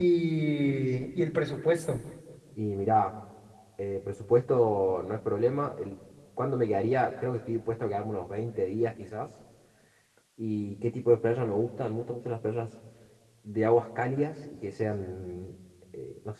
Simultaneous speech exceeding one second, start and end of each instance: none

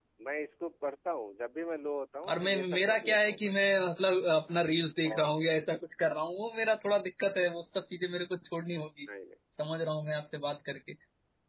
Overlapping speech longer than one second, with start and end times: 2.3-3.5

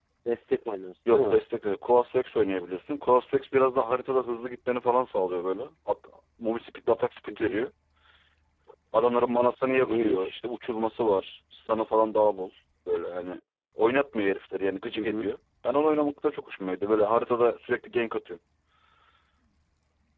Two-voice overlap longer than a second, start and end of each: none

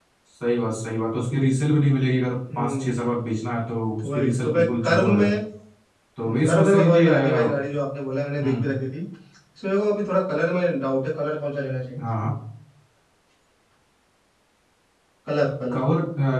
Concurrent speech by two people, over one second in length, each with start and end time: 4.0-5.3, 6.2-7.5

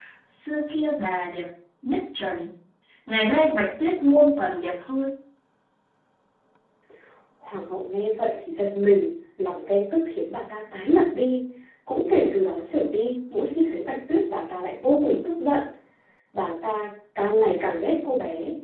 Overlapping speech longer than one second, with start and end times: none

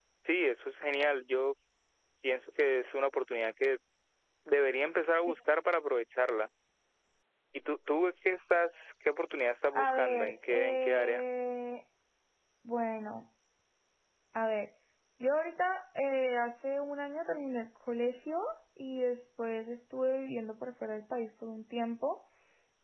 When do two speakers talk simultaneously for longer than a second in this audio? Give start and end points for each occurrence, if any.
9.7-11.2

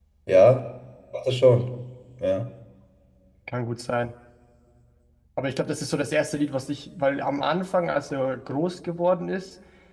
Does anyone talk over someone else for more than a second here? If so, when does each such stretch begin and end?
none

